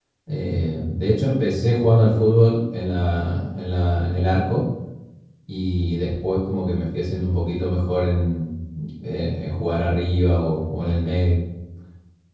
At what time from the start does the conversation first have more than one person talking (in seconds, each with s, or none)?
none